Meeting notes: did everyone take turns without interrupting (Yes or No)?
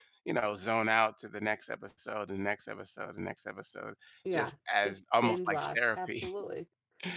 No